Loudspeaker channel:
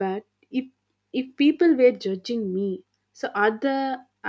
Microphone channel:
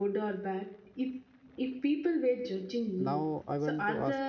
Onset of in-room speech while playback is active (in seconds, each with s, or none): 3.1 s